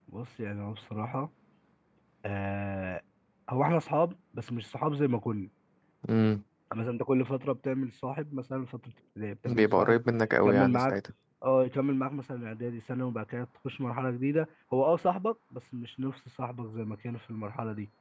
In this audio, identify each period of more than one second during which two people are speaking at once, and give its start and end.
none

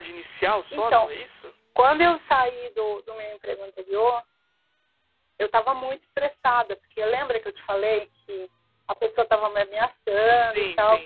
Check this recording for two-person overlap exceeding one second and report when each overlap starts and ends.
none

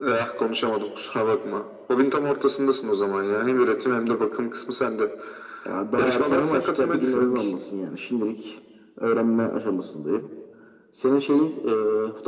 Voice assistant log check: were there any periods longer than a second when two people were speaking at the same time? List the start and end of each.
6.0-7.5

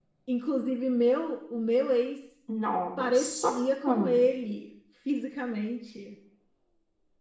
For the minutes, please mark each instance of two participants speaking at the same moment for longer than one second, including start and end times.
3.0-4.2

